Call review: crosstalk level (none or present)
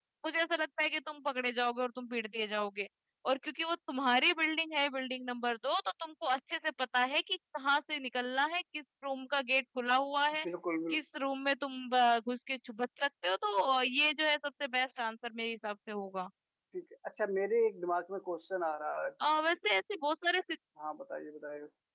none